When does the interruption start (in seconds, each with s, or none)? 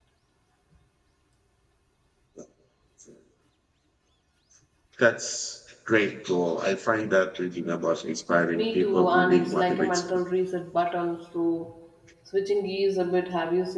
8.5 s